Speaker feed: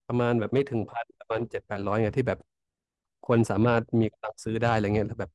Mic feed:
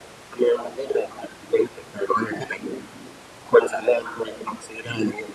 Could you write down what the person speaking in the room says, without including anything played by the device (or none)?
none